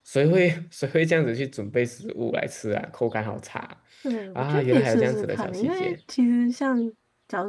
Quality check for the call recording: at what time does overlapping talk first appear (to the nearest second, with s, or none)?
4 s